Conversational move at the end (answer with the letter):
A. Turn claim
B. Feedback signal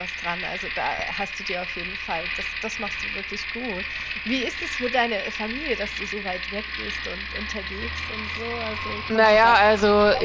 A